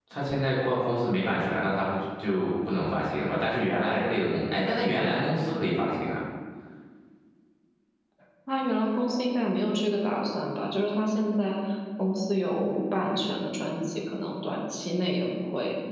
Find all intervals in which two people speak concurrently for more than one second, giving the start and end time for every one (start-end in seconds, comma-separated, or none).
none